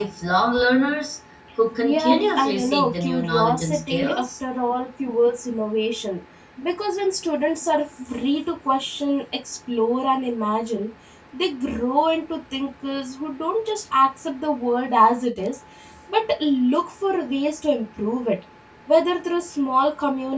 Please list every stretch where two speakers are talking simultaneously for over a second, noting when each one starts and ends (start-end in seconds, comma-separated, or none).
1.8-4.2